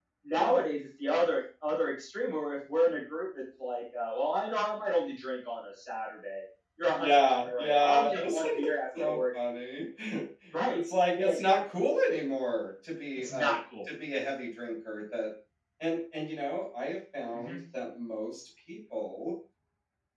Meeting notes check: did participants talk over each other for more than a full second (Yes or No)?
Yes